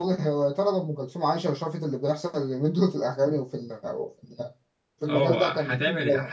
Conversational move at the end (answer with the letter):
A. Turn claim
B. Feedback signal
A